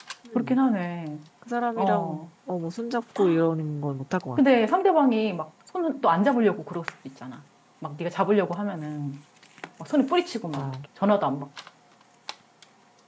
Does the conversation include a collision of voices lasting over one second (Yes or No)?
No